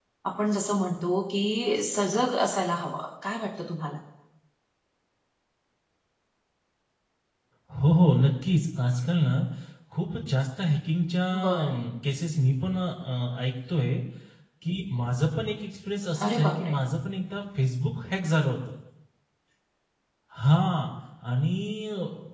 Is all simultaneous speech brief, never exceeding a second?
Yes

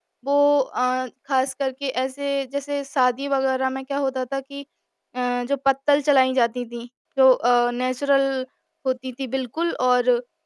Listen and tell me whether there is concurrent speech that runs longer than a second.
No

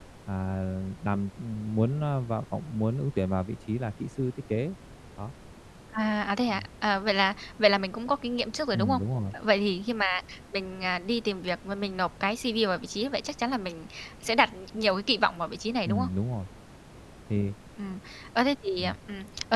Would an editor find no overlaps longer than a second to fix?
Yes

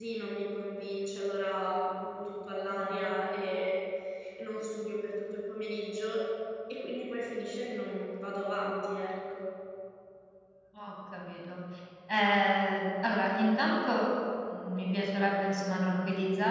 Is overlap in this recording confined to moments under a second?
Yes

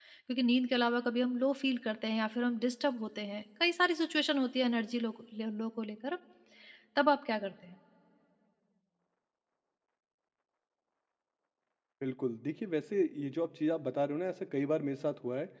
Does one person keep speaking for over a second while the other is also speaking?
No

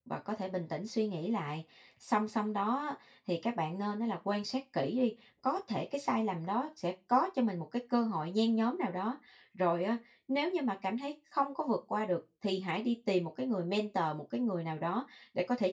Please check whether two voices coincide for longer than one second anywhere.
No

